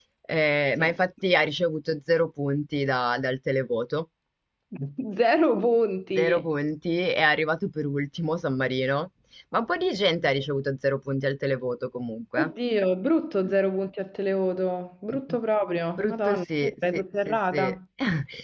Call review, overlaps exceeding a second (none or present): present